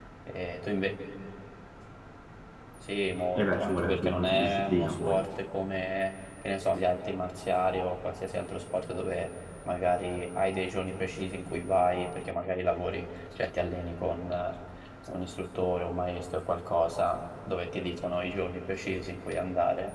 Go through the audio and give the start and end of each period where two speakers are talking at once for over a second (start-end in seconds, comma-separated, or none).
3.4-5.2